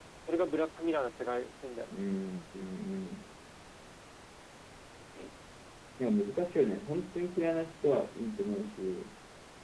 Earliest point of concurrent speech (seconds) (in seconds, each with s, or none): none